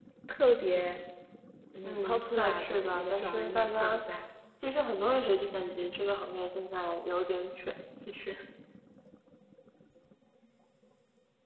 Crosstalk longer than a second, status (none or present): present